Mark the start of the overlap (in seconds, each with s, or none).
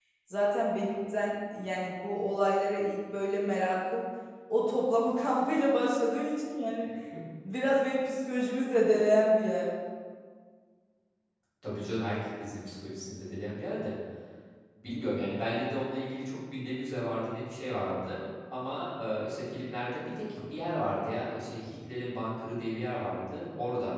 none